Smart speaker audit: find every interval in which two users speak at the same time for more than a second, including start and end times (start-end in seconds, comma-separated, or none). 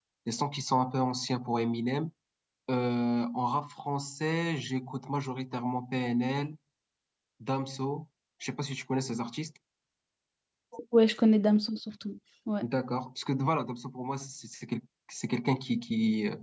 none